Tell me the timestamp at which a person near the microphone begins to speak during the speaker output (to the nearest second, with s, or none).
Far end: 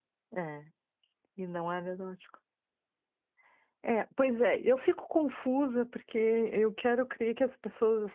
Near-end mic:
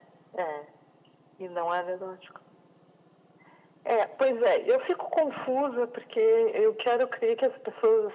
none